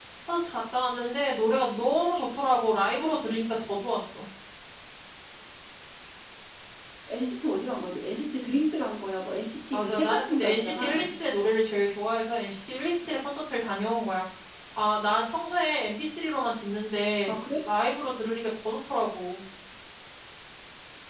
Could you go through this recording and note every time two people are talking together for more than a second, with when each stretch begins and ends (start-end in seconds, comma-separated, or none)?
9.7-11.1